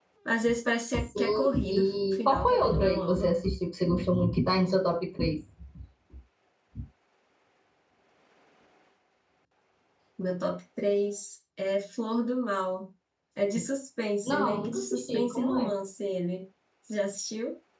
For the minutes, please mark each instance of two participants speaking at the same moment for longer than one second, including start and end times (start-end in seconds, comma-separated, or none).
1.0-3.3, 14.2-15.7